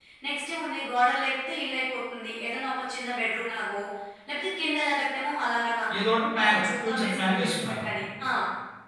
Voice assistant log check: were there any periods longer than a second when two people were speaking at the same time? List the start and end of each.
6.4-7.8

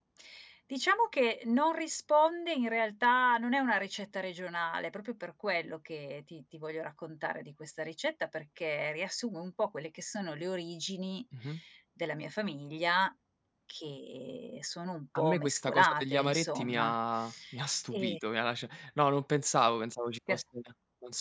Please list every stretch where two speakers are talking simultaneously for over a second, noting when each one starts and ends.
15.2-16.9

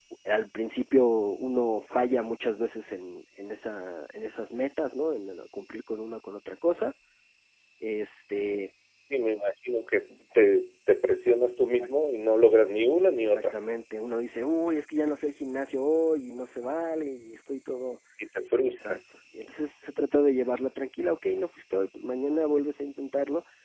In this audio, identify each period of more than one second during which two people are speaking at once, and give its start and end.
none

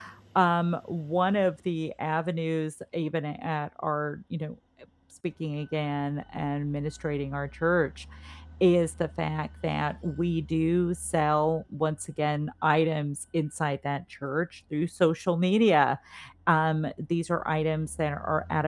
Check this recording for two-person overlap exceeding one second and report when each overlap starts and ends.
none

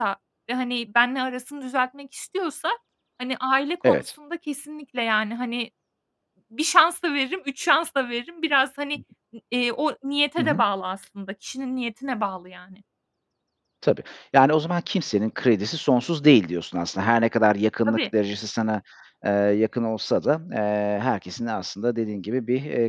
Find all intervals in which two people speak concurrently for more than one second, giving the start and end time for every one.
none

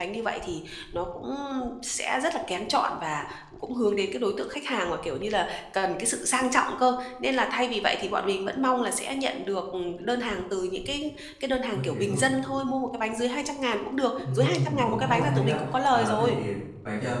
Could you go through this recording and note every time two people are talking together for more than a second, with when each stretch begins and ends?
14.3-16.4

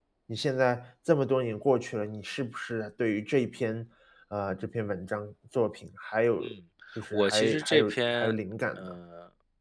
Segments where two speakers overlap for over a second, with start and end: 7.1-8.3

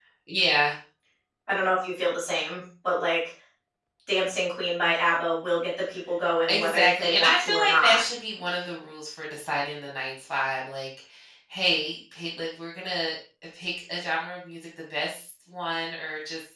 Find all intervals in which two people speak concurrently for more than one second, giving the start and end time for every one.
6.5-8.0

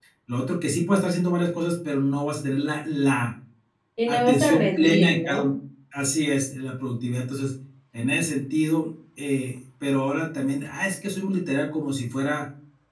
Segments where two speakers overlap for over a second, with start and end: 4.1-5.5

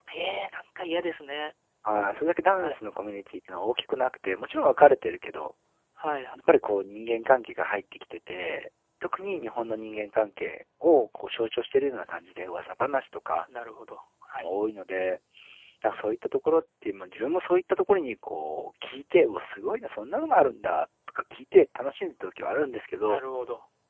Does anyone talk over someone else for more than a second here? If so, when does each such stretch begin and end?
none

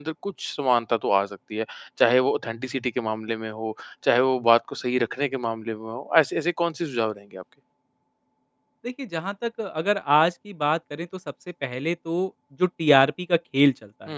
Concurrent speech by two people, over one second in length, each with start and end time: none

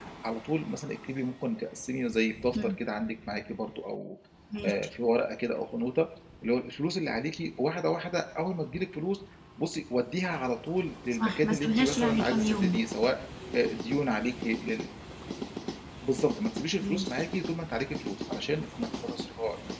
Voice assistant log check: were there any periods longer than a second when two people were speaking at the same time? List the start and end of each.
11.1-12.8

